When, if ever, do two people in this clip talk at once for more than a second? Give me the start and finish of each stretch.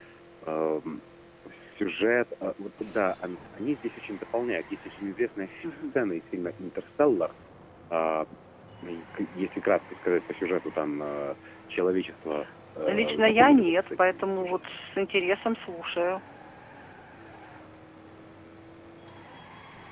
12.9-14.8

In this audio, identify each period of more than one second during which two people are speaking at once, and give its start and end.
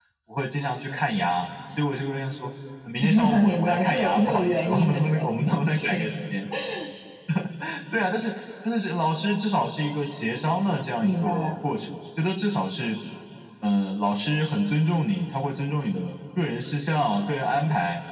3.0-5.2

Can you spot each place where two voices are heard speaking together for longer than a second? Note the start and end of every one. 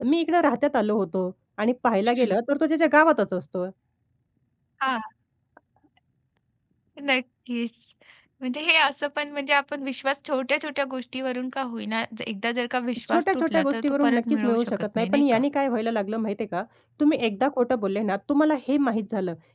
13.1-15.4

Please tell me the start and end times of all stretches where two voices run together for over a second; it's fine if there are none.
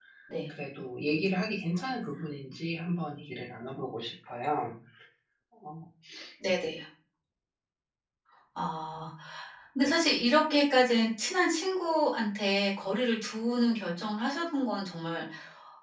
none

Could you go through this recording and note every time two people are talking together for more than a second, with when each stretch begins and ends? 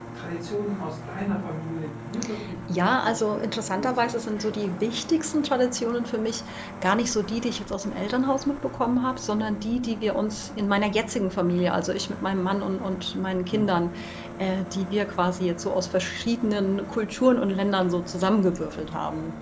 2.8-5.0

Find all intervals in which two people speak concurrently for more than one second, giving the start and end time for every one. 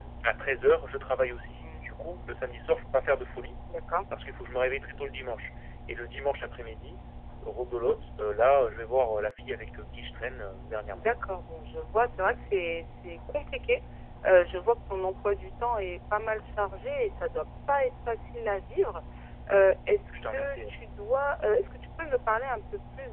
none

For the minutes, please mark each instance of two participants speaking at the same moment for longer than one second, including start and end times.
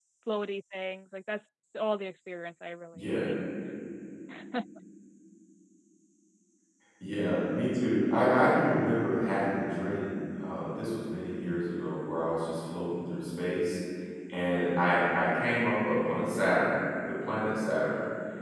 none

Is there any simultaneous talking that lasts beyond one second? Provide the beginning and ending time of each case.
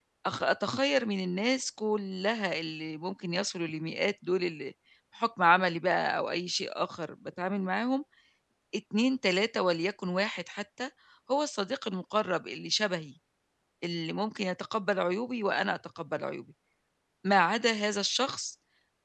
none

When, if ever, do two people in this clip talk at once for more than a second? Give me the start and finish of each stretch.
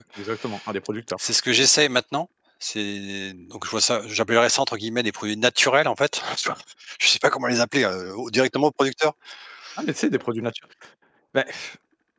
none

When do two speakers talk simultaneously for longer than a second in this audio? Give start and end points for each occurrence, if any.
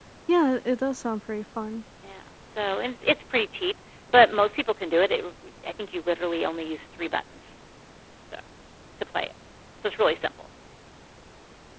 none

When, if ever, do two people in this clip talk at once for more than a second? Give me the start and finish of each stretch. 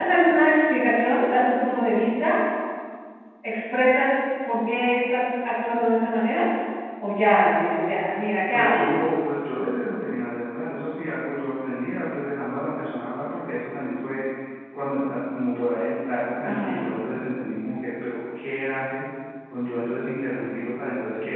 none

